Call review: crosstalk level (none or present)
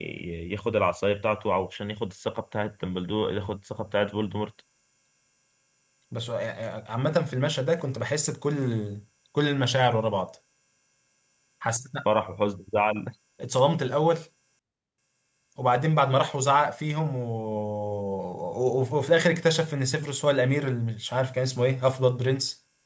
none